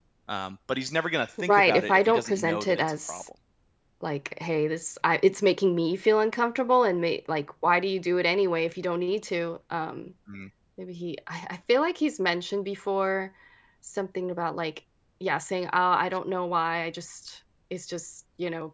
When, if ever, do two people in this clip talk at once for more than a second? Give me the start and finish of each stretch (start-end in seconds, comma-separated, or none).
1.5-3.3